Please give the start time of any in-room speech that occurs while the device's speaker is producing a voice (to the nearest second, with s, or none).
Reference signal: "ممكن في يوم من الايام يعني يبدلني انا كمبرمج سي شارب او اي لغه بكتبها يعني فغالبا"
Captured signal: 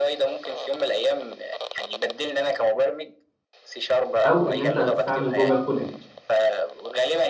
4 s